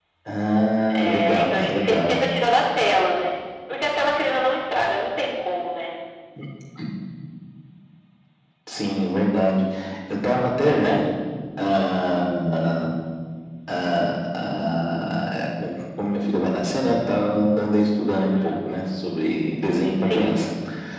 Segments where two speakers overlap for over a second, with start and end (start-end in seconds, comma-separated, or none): 0.9-2.2